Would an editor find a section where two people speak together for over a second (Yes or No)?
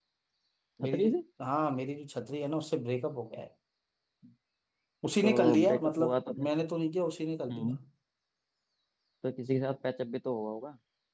Yes